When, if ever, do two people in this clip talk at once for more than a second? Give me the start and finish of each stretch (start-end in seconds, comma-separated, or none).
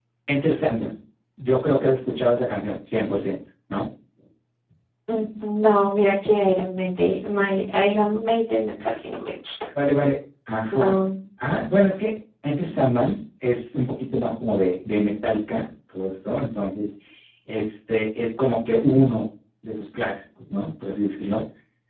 none